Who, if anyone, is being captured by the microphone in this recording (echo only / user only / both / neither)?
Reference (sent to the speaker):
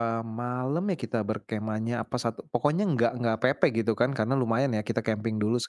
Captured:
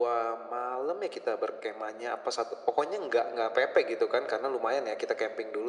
echo only